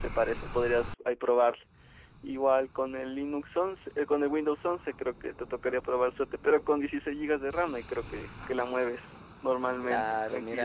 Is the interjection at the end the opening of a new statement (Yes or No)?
Yes